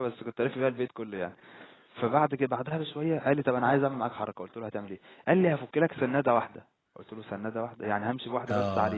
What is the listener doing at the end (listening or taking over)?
taking over